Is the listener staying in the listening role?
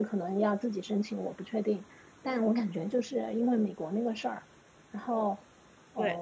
Yes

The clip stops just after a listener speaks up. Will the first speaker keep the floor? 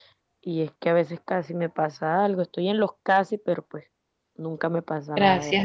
No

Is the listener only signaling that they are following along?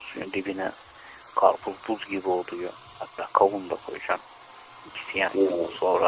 Yes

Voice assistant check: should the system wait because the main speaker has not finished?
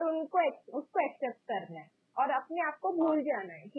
Yes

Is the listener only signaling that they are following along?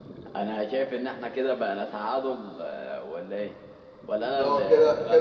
No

